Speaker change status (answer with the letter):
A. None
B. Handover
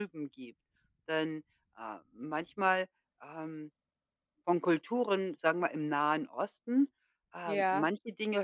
A